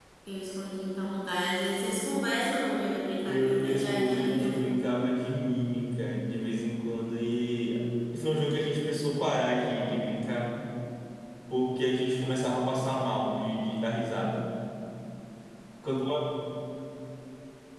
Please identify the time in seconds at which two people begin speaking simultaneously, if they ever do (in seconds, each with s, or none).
3.2 s